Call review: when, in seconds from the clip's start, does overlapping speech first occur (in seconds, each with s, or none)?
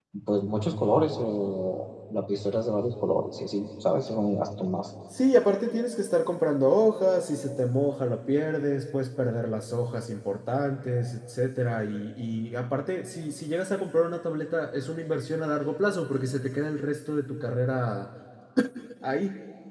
none